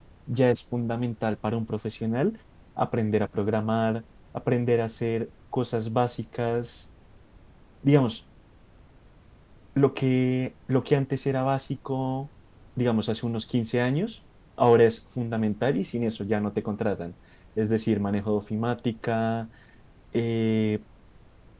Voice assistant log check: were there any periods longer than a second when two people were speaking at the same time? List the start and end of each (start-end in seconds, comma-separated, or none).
none